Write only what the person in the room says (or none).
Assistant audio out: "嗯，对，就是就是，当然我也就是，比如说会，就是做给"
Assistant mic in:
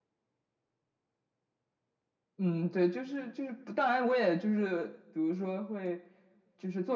none